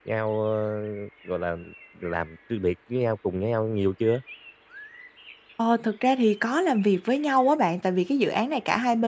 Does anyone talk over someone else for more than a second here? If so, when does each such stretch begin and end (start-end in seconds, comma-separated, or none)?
none